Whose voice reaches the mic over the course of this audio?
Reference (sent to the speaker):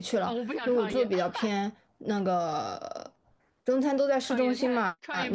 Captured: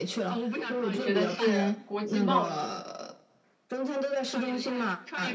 both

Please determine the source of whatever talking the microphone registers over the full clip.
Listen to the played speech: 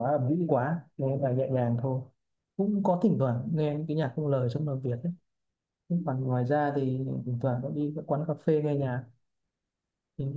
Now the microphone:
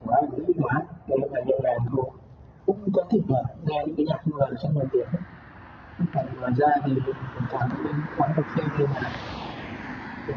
echo only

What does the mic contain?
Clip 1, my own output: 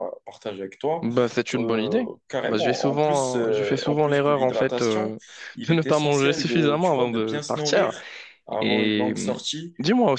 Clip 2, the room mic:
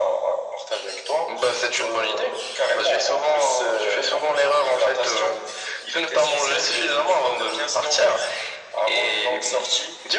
echo only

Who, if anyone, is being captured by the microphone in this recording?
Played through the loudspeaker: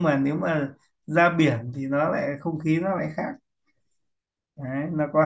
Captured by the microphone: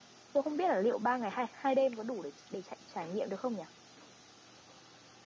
user only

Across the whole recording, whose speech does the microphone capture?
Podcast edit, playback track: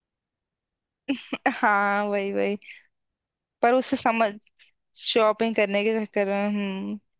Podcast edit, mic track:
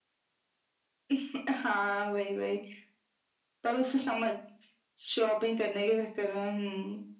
echo only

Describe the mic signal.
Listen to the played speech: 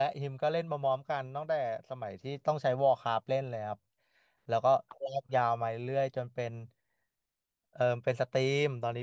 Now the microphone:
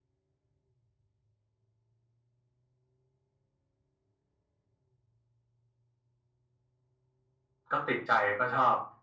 user only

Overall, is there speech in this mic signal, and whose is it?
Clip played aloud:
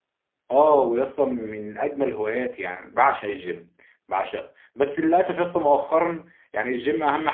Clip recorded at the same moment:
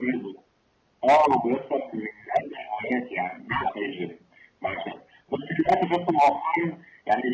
echo only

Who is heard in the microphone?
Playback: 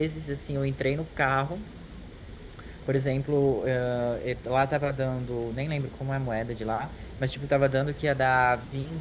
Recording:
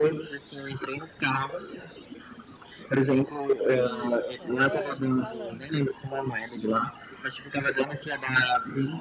both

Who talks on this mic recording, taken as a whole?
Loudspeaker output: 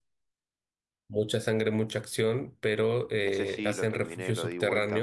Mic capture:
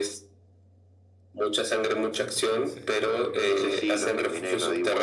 both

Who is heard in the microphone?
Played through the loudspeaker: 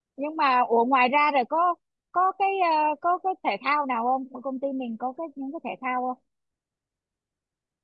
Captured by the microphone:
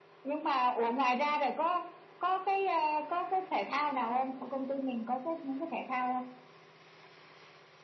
echo only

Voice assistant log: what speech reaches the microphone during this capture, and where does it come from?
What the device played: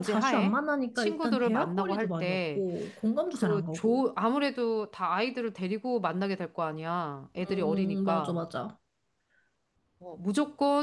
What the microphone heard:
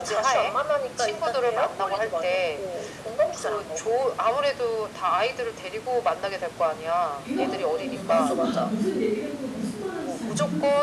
both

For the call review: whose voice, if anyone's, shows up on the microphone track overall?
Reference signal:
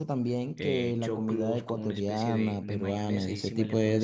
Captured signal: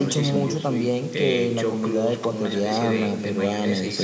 both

